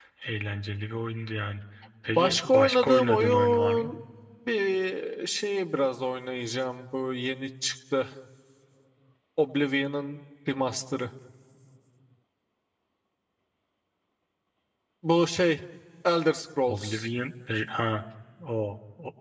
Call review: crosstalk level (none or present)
present